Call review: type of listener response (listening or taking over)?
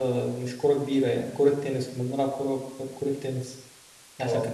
listening